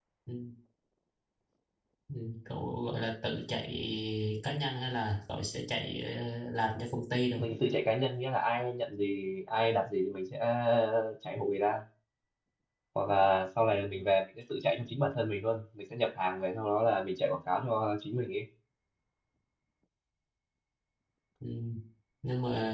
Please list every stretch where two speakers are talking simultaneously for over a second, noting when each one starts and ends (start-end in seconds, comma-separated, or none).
none